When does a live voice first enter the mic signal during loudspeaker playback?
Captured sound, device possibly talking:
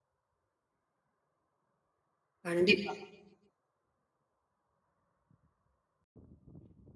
2 s

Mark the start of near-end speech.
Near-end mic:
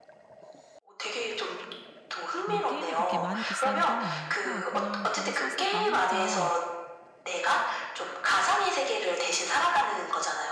2 s

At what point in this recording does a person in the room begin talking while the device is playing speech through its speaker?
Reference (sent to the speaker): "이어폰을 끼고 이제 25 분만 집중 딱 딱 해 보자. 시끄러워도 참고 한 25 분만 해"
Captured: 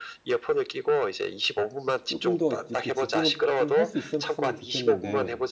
2 s

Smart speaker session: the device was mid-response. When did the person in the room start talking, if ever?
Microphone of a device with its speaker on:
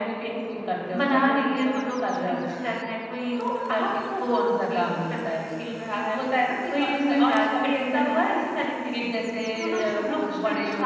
none

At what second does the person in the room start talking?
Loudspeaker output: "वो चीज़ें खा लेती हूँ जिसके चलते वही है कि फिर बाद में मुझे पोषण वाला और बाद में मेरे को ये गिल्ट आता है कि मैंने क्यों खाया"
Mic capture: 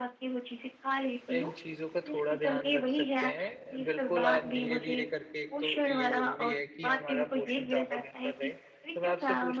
1 s

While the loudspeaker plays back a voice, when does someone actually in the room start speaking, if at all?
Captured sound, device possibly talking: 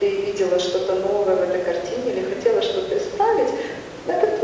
none

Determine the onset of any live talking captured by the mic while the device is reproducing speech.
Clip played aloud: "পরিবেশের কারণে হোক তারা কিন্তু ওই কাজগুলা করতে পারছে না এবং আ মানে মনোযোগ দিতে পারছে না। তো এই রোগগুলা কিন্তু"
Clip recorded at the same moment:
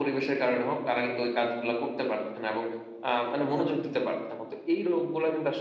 3 s

